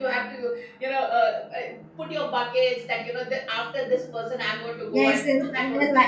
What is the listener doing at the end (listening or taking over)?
taking over